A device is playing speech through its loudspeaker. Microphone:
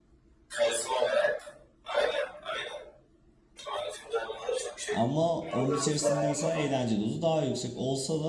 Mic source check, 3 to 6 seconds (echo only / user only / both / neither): both